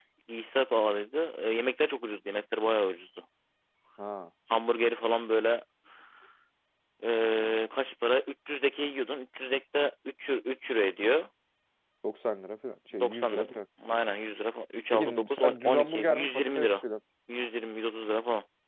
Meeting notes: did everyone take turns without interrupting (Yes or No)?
No